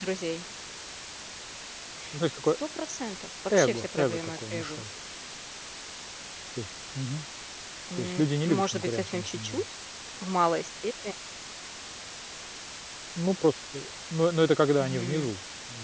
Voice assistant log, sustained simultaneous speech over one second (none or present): present